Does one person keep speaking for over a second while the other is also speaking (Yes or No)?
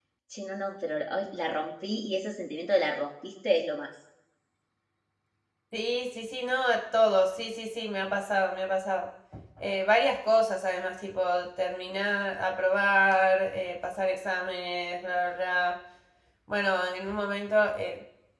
No